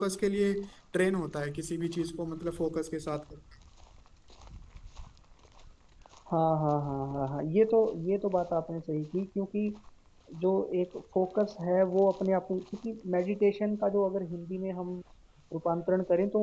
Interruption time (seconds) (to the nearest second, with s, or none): none